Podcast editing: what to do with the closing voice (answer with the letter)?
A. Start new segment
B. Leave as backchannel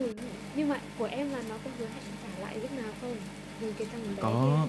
A